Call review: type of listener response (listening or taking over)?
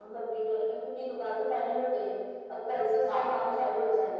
listening